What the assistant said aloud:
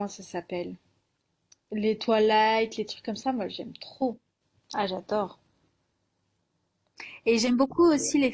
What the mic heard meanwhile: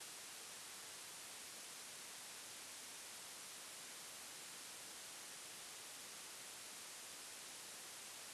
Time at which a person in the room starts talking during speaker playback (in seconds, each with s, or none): none